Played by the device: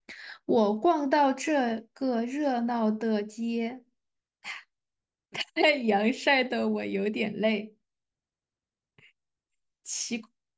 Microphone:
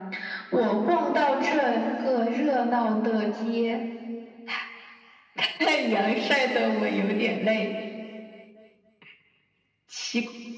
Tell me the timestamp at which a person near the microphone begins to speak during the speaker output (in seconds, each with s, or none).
none